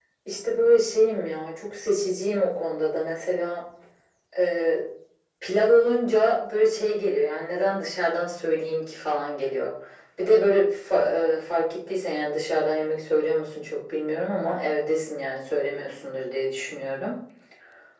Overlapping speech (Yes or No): No